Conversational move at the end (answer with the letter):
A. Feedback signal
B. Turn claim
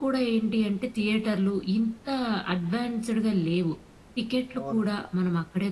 A